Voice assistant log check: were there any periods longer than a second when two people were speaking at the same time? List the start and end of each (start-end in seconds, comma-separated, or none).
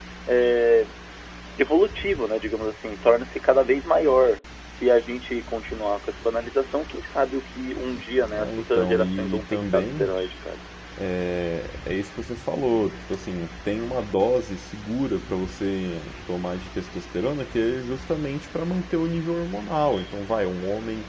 8.4-10.1